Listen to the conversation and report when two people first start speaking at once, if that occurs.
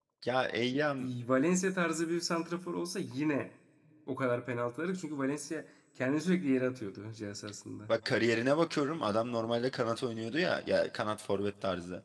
none

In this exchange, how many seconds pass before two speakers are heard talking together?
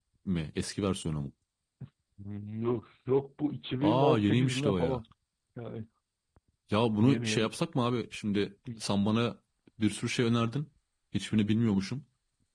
3.8 s

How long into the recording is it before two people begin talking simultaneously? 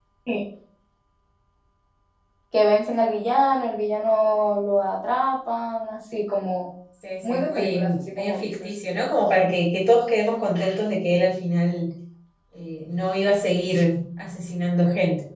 7.2 s

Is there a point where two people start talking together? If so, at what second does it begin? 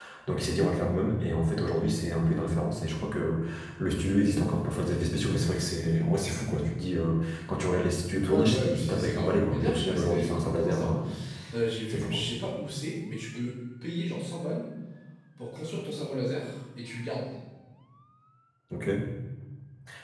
8.3 s

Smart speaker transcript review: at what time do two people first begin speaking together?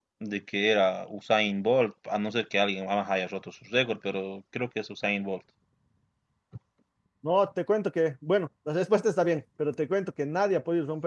none

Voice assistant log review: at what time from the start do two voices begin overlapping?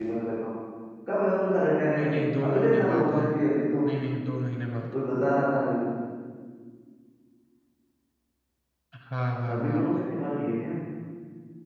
1.9 s

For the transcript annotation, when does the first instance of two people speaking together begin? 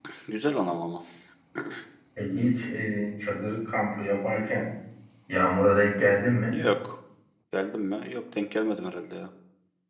none

